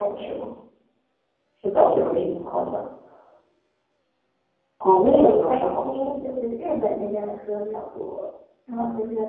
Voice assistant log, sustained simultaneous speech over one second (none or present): present